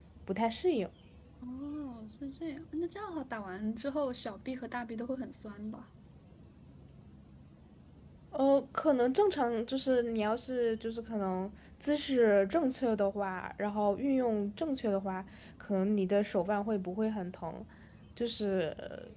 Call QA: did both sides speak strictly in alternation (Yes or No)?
Yes